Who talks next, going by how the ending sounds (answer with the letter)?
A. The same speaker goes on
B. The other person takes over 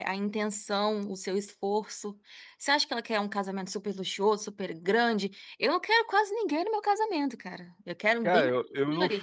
B